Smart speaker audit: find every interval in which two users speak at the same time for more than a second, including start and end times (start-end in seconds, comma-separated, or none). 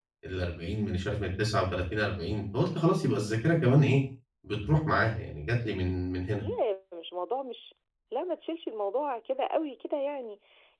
none